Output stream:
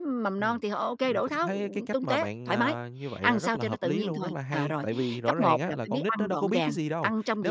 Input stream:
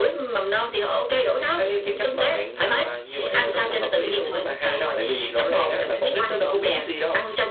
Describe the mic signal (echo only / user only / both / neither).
echo only